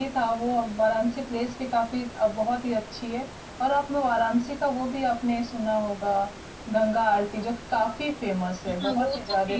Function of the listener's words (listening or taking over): taking over